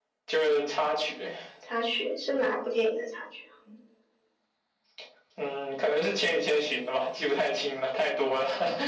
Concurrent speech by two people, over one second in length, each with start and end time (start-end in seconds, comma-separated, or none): none